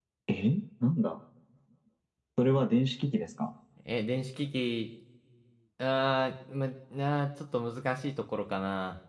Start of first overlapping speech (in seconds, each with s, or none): none